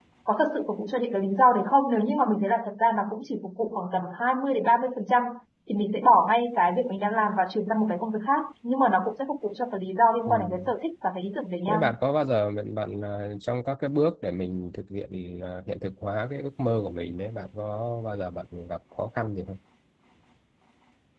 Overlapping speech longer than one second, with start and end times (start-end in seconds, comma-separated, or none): none